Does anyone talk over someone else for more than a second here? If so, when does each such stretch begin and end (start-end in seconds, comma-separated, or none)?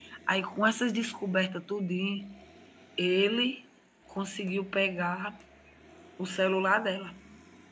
none